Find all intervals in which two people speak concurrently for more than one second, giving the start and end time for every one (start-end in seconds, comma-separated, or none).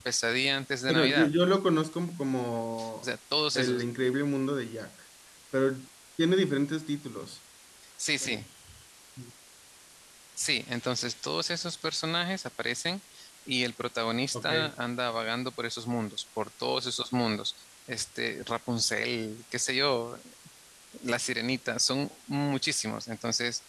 none